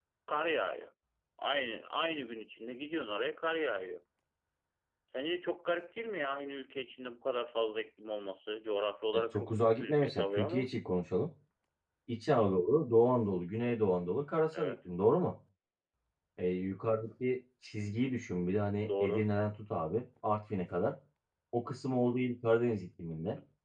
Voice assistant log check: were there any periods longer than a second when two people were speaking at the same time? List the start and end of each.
9.1-10.7

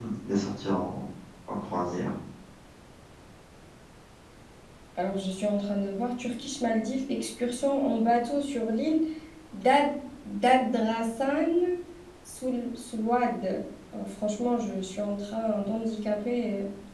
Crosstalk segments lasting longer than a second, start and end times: none

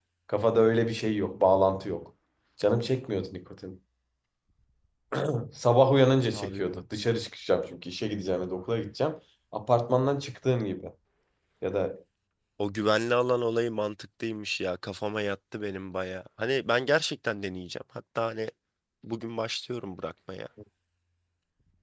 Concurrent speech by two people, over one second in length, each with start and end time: none

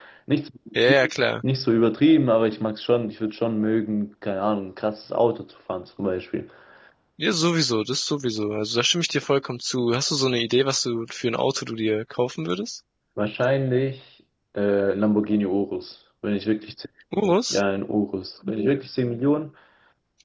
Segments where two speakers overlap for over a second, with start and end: none

